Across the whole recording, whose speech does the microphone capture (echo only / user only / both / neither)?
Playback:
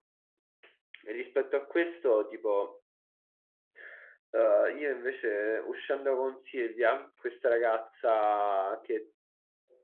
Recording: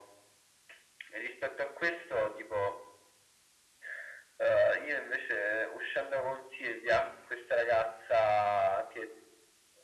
echo only